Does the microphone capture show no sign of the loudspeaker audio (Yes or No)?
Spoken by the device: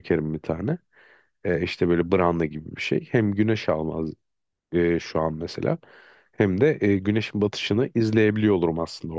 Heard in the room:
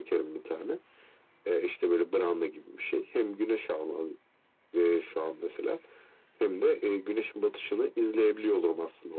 No